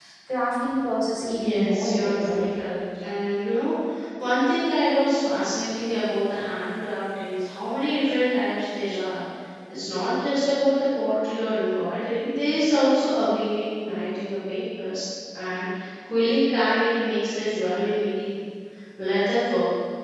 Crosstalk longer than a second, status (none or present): present